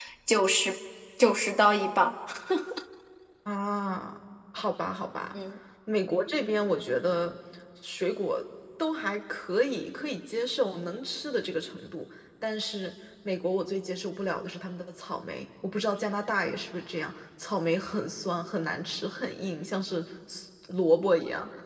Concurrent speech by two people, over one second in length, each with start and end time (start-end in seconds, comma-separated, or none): none